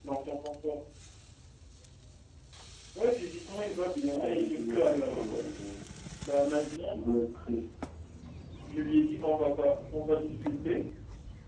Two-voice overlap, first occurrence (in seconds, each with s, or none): 4.1 s